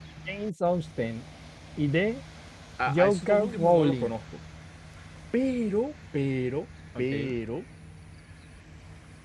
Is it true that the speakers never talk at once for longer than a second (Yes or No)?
No